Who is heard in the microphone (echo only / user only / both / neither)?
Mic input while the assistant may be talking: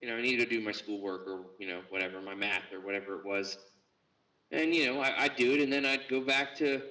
echo only